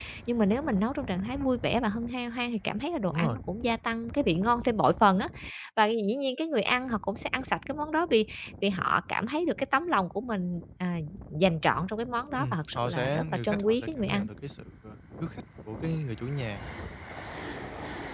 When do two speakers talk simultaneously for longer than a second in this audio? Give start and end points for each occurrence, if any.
12.4-14.3

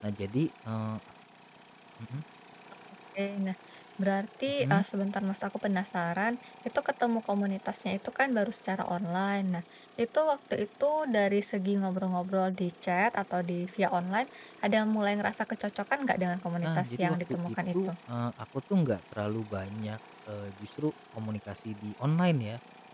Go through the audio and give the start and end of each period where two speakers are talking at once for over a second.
16.6-17.9

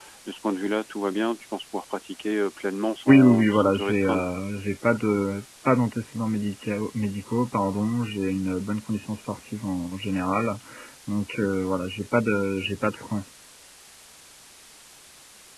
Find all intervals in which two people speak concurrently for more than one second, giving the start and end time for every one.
3.1-4.3

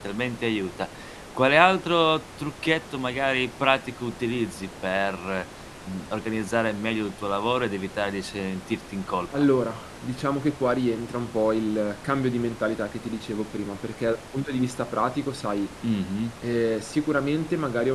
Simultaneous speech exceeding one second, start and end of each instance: none

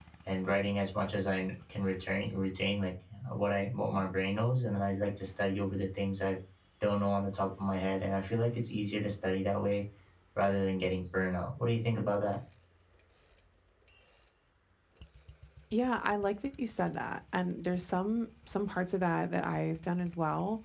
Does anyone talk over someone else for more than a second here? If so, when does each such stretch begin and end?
none

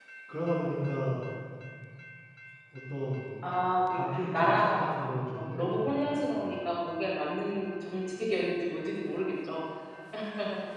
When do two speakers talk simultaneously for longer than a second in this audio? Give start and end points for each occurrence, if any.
3.9-6.3

